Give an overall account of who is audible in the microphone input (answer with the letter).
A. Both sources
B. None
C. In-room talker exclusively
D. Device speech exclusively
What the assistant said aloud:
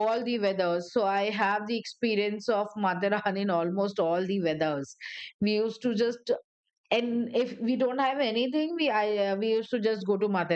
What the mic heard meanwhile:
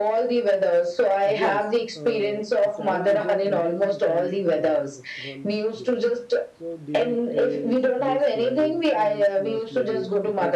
A